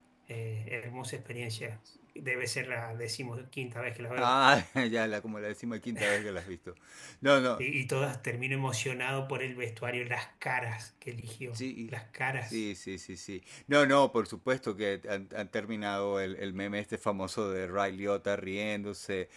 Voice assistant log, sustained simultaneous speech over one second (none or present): none